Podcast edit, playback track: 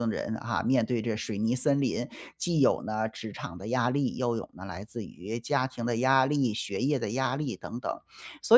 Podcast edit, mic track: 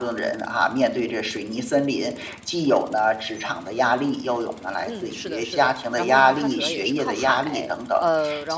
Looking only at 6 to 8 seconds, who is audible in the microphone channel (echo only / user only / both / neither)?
both